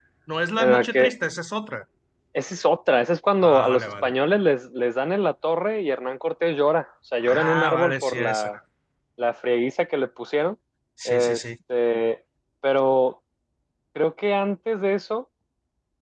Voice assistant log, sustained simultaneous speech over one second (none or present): present